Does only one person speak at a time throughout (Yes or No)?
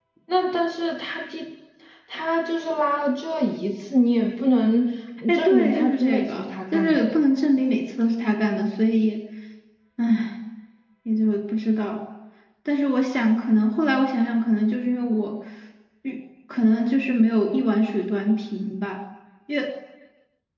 No